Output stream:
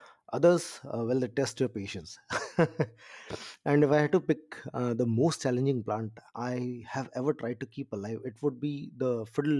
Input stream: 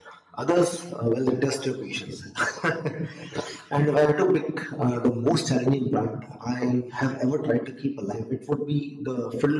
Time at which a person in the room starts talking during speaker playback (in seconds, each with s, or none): none